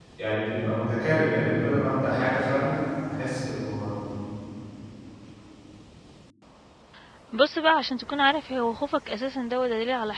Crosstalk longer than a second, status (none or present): none